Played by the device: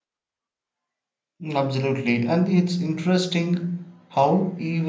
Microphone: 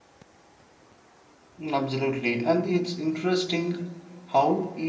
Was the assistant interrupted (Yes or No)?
No